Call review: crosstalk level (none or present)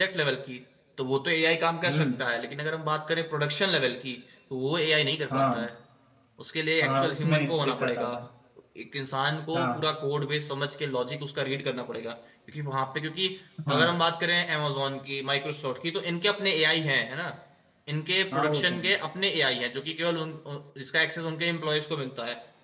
present